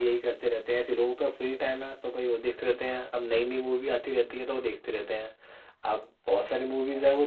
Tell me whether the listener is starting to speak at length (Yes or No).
No